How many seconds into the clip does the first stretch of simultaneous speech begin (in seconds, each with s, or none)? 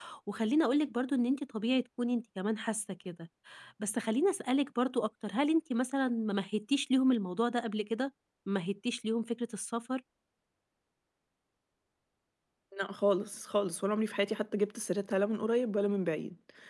none